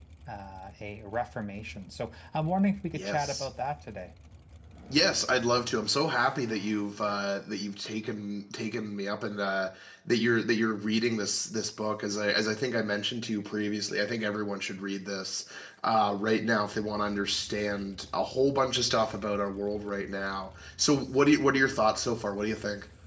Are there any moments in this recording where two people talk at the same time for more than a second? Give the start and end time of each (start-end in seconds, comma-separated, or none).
none